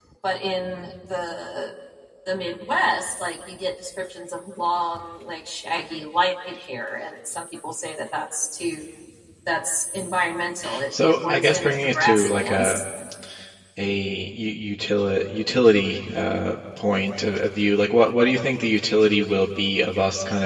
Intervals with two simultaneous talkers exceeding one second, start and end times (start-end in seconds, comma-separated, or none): 10.9-12.8